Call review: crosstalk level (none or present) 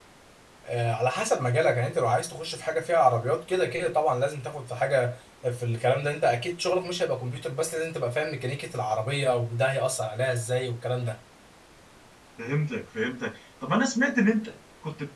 none